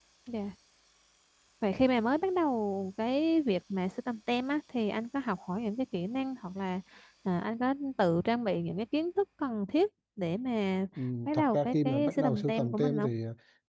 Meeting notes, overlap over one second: present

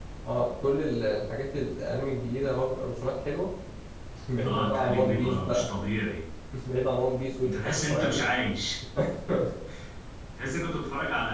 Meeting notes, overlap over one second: present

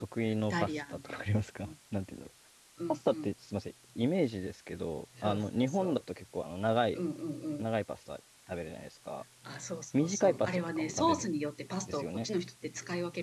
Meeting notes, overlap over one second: present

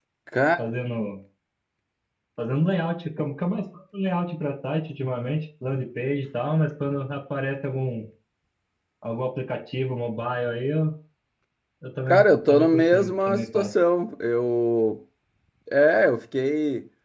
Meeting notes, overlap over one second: present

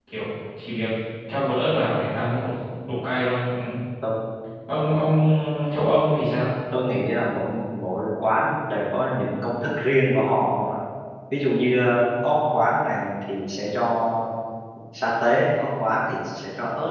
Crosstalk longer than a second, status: none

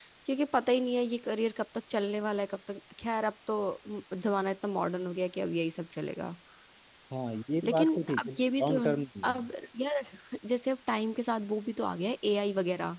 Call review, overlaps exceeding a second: present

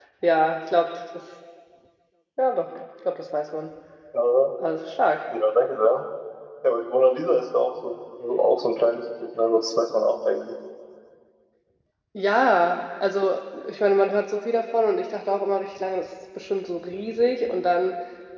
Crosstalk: none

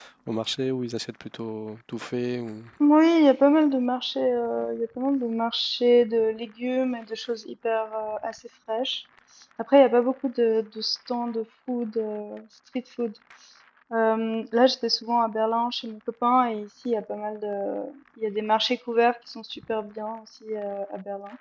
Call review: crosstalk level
none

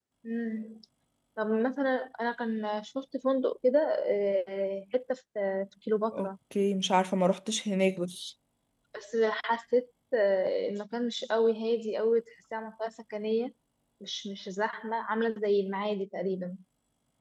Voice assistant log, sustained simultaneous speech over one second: none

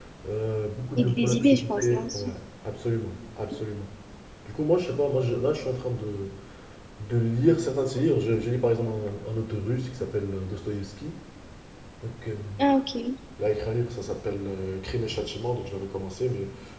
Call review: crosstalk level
present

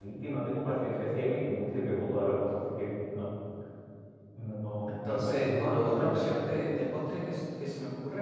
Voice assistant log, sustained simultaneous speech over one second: present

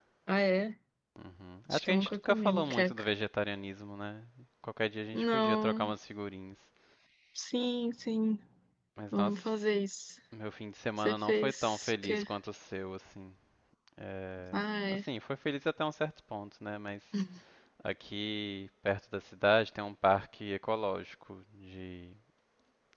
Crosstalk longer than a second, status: present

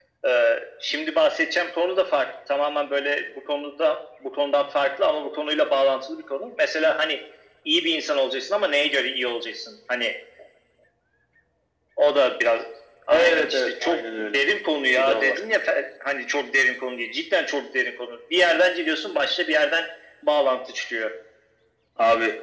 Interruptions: present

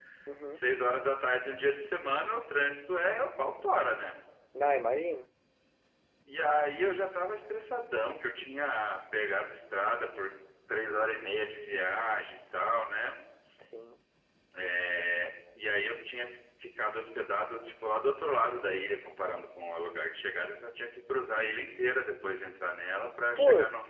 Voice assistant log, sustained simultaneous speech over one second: none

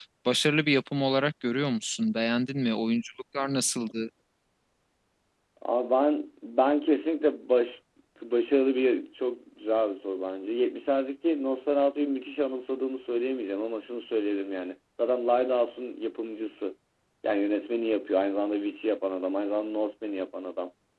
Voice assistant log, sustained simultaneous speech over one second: none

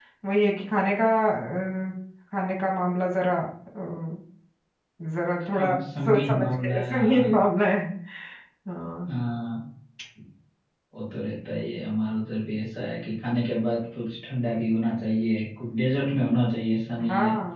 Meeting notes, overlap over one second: present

